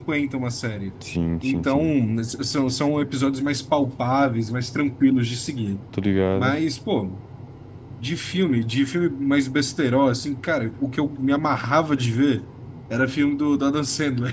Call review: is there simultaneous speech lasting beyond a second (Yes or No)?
No